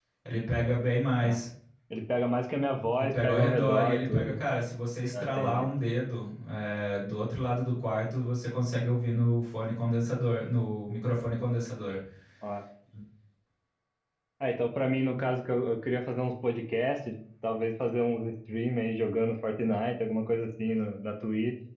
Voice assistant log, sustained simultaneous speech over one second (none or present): present